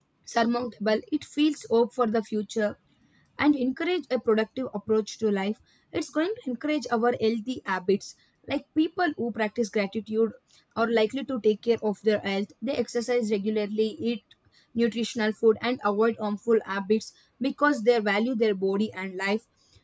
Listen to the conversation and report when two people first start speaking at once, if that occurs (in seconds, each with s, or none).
none